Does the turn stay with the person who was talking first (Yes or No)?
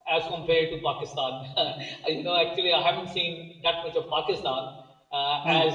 Yes